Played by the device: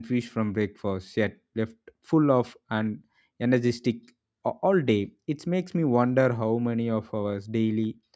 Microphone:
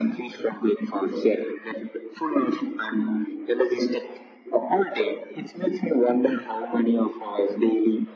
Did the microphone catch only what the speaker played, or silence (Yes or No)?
Yes